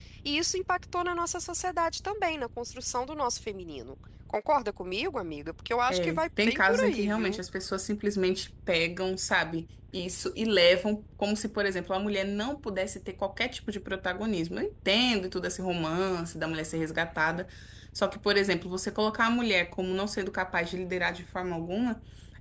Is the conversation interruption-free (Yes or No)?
No